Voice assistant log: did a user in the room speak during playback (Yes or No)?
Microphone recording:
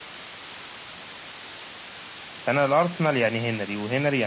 Yes